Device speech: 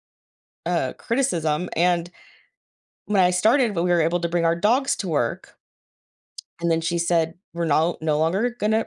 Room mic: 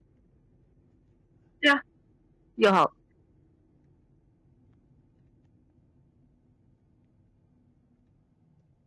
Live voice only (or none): Yeah. You'll help.